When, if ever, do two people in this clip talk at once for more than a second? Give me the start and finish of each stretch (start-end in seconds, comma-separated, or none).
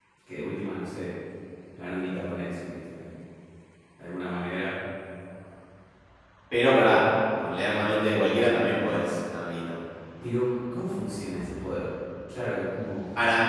none